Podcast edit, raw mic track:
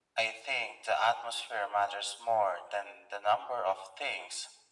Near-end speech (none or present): none